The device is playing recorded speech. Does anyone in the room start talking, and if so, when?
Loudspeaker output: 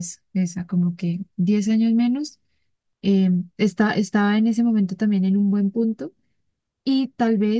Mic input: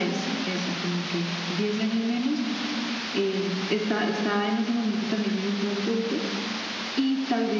none

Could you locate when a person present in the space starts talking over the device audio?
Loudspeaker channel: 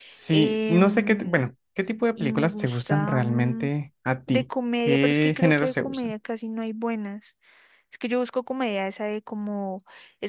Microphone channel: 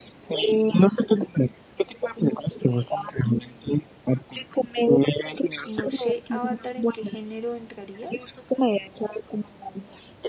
5.6 s

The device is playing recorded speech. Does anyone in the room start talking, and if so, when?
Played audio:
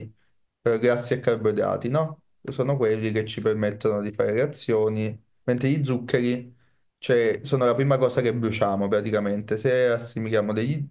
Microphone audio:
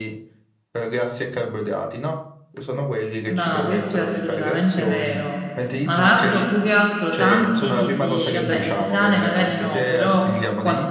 3.2 s

